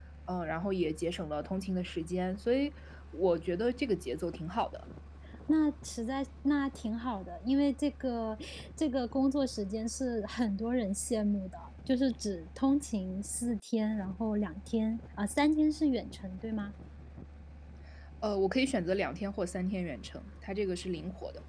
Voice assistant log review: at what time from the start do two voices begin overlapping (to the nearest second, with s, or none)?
none